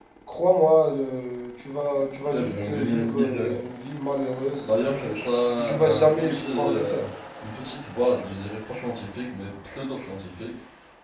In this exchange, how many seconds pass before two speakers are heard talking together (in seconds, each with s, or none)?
2.3 s